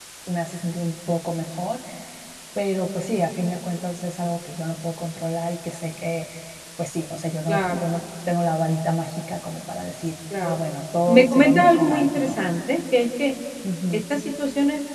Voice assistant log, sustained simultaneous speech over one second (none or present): present